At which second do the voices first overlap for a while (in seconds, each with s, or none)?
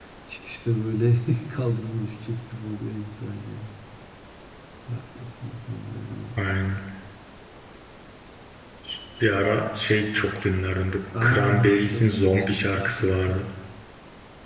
11.1 s